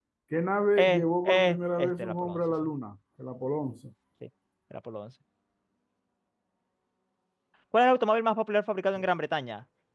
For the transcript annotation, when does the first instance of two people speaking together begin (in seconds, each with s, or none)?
0.8 s